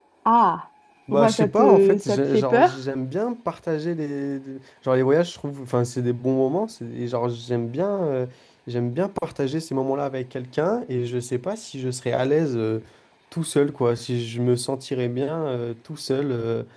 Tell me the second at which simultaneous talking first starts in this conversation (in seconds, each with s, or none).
1.1 s